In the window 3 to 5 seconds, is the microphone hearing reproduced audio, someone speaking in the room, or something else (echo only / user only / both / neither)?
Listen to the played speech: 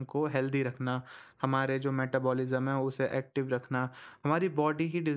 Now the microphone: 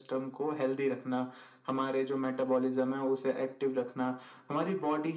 echo only